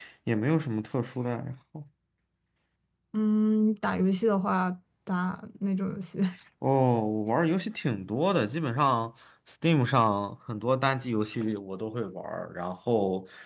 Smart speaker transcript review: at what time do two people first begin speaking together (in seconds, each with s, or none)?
none